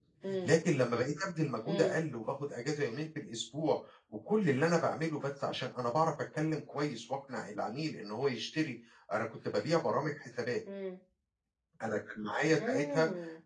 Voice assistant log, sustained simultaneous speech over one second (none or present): none